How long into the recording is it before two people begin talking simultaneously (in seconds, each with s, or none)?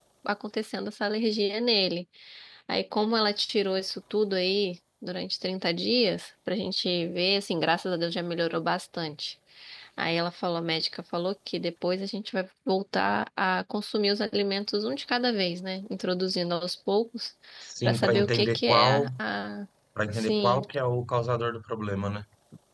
17.8 s